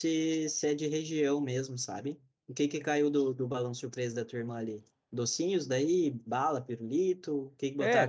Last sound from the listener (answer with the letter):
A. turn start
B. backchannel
A